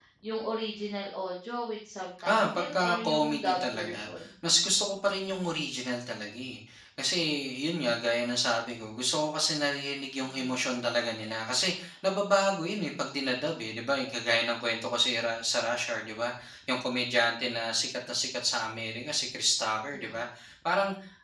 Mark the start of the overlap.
2 s

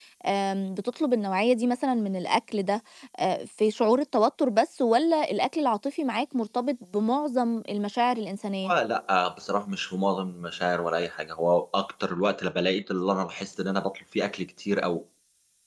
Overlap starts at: none

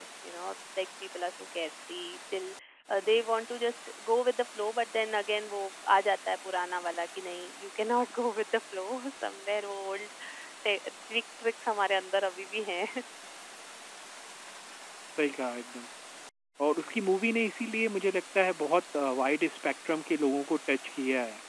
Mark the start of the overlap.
none

